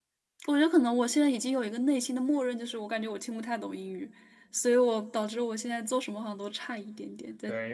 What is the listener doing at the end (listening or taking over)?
taking over